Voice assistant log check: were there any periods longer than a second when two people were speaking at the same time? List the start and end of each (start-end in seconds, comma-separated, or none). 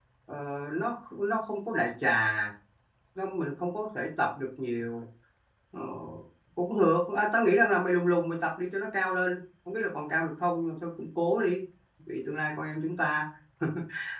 none